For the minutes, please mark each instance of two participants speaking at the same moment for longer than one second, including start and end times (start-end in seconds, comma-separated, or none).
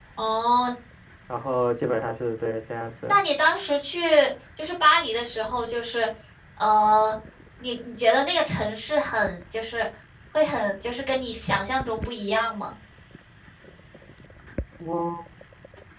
none